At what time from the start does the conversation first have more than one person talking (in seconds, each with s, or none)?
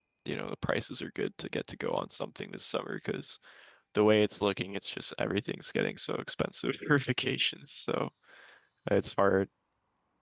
none